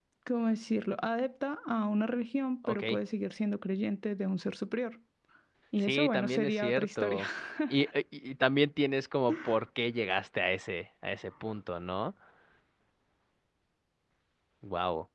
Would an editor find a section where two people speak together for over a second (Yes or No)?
Yes